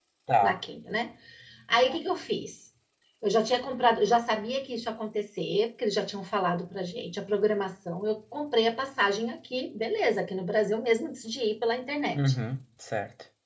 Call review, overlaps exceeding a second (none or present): none